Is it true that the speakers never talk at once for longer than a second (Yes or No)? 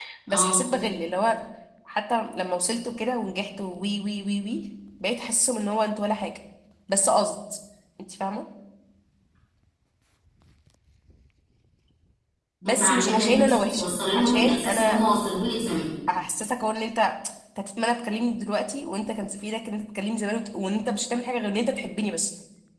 No